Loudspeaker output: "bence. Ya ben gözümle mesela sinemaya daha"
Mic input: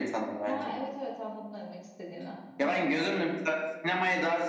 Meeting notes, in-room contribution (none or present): present